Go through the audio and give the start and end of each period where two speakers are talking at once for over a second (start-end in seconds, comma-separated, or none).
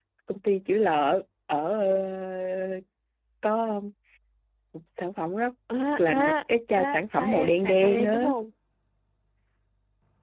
6.8-8.3